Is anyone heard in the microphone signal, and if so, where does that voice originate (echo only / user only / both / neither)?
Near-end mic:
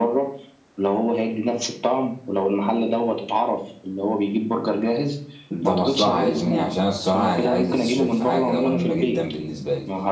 both